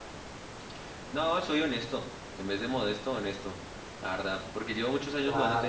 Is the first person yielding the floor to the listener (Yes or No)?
Yes